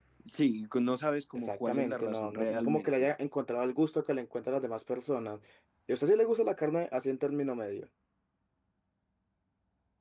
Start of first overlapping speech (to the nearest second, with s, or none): 1 s